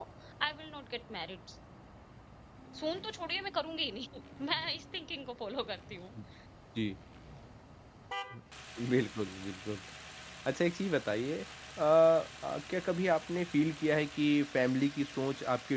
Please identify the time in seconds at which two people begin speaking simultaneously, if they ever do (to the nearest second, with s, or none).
none